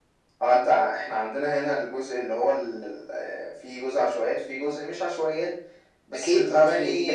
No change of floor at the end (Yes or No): No